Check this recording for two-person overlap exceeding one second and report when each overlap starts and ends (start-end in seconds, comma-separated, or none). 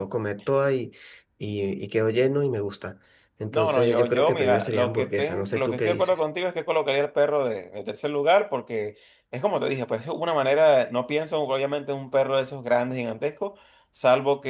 3.5-6.1